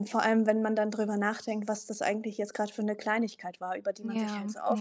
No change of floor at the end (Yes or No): Yes